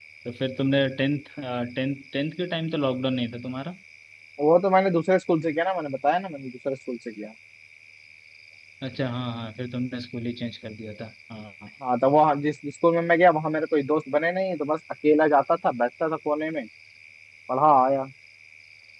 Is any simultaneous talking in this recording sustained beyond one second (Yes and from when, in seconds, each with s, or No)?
No